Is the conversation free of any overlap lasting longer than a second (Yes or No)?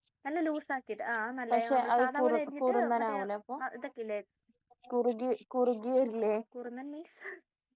No